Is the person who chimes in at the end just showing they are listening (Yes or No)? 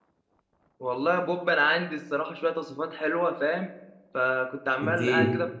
Yes